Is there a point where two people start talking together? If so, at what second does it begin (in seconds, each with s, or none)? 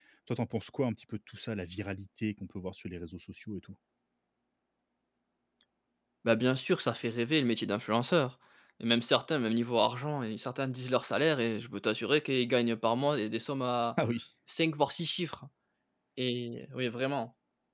none